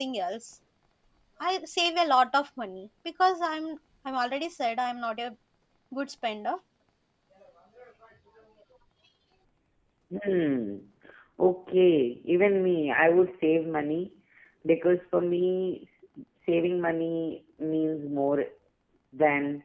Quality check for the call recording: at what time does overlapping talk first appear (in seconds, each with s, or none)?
none